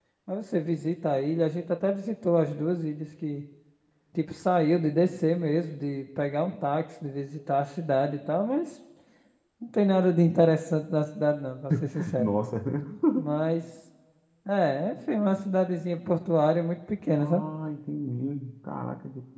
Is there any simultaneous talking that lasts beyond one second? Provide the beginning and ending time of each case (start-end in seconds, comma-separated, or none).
none